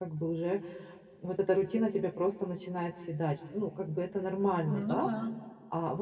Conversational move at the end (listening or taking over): listening